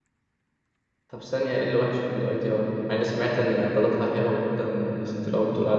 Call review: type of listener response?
taking over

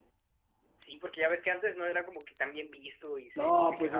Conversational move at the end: taking over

